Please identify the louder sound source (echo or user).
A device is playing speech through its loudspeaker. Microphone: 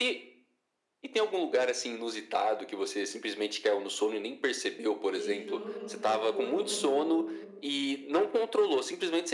echo